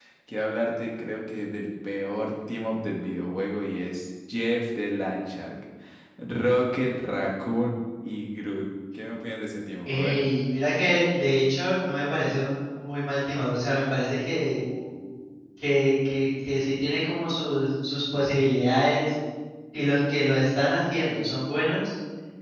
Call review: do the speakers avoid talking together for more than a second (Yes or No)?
Yes